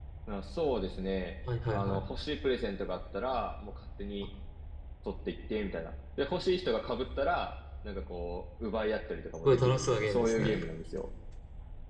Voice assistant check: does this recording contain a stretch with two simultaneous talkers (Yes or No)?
Yes